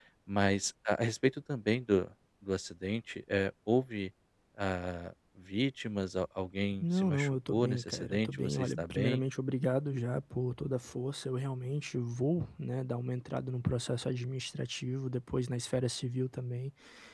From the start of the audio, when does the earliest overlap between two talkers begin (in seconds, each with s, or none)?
6.8 s